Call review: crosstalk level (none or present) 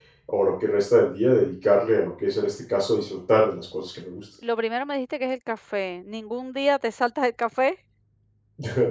none